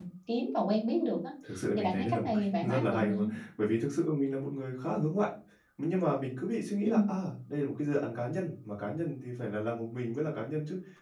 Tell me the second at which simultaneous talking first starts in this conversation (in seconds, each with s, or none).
1.8 s